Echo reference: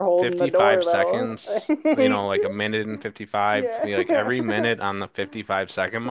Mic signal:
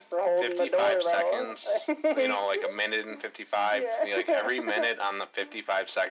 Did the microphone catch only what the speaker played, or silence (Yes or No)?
Yes